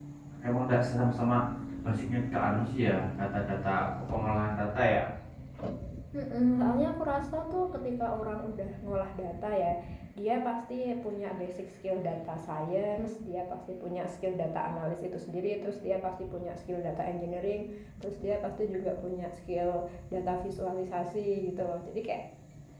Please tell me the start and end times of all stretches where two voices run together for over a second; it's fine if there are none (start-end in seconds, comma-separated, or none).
none